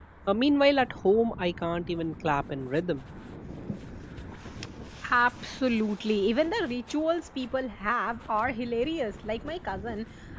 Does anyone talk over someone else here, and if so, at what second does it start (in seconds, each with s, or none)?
none